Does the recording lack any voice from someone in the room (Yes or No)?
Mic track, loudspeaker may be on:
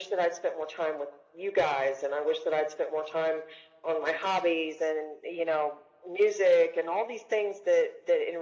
Yes